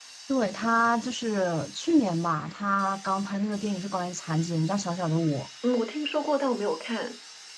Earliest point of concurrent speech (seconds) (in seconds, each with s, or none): none